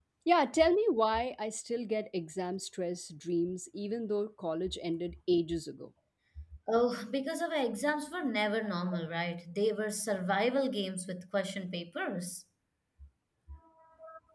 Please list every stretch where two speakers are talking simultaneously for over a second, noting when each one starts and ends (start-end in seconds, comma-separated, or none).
none